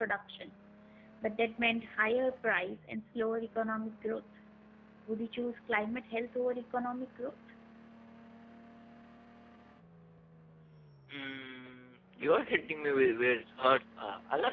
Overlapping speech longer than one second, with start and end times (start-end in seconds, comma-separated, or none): none